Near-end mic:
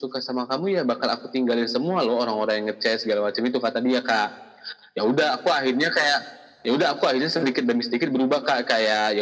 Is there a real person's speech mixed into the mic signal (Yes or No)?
No